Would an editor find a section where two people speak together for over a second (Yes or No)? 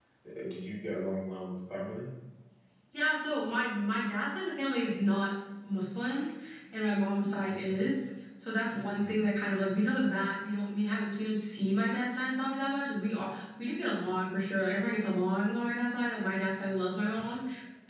No